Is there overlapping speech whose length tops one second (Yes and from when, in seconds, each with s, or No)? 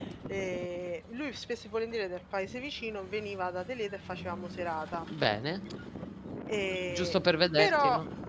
No